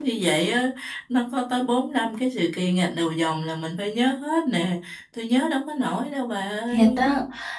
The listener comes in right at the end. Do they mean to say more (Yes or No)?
Yes